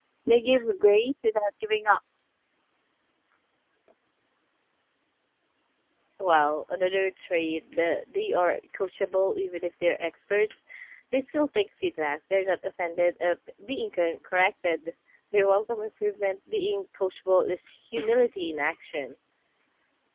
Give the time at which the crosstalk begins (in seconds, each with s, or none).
none